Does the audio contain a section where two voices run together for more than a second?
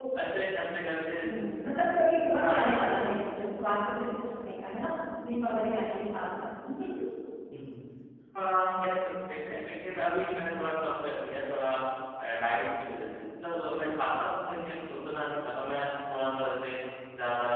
No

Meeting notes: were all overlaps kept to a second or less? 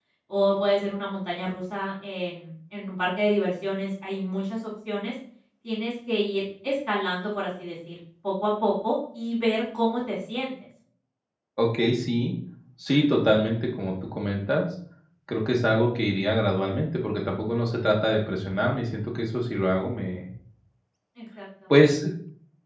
Yes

